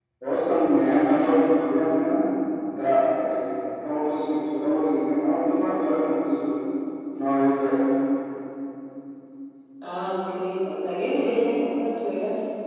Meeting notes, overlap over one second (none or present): none